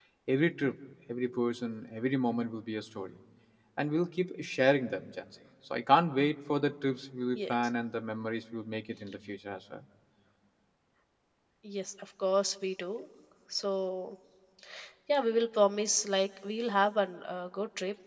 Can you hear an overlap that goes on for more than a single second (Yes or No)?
No